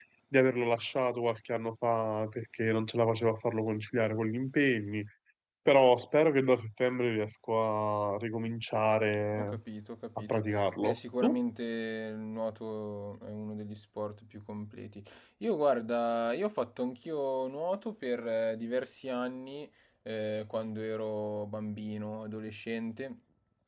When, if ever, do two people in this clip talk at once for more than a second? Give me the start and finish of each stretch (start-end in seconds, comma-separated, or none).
10.2-11.4